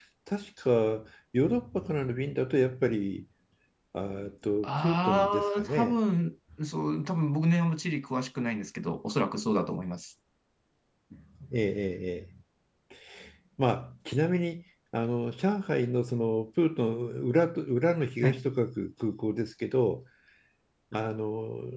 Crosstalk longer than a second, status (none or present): present